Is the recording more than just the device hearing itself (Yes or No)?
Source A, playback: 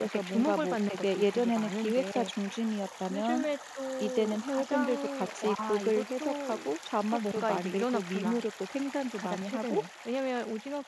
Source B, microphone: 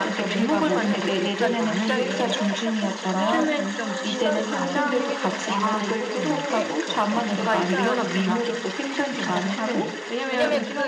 Yes